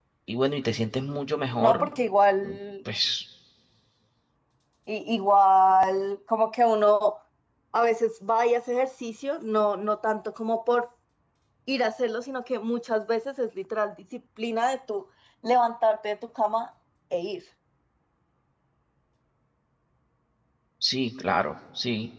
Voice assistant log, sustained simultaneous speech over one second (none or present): none